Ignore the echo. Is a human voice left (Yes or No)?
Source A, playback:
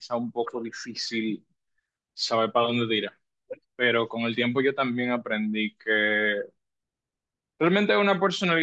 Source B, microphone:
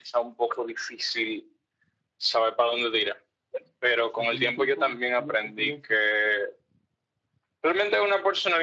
Yes